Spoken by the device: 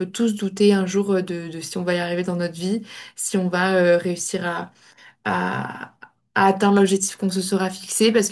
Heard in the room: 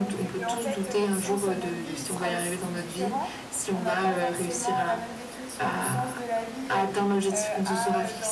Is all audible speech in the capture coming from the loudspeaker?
No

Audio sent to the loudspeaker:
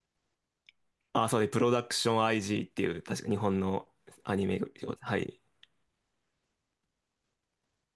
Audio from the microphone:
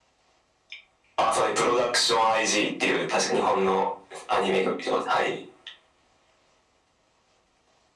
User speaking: No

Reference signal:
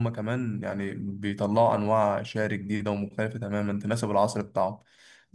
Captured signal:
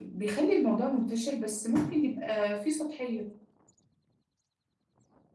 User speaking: Yes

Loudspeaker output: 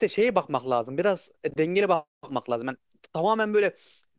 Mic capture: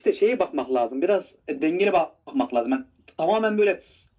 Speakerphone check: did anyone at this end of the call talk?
No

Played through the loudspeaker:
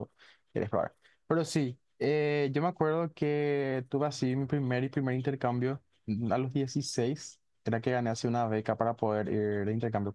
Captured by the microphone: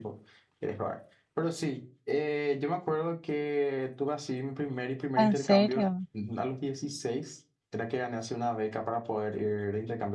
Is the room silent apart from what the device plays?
No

